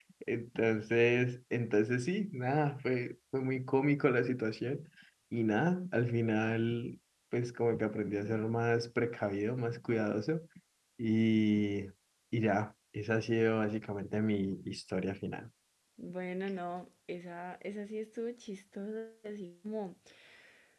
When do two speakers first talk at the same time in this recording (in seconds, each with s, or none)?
none